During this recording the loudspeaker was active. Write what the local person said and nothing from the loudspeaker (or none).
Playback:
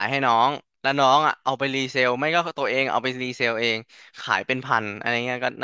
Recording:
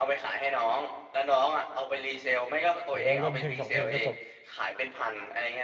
หรือว่าเล่นเพลงสองเพลงก็จบ